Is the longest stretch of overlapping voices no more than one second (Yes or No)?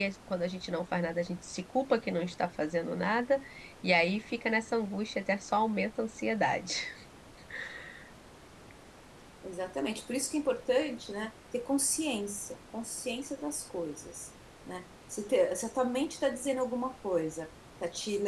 Yes